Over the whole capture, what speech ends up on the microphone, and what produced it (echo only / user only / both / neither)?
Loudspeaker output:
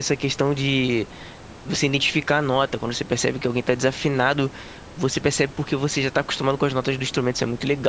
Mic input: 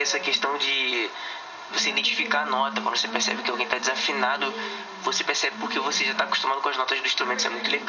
both